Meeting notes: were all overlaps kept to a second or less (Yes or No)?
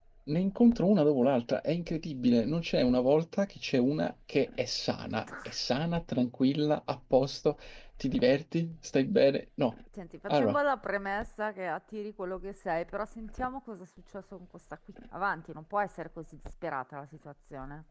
Yes